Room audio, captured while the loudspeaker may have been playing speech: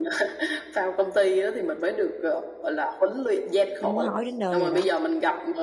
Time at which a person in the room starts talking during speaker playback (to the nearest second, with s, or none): 4 s